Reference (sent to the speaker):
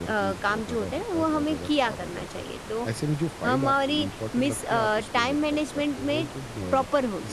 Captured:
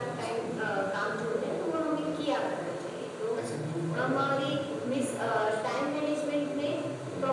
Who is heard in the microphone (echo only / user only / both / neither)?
echo only